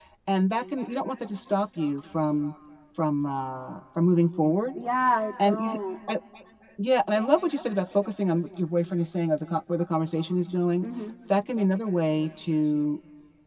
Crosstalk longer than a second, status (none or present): none